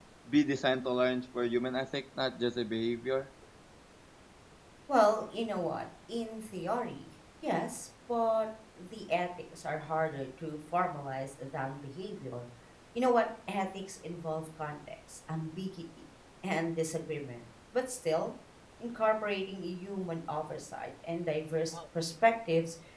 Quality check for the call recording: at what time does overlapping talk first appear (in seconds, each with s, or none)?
none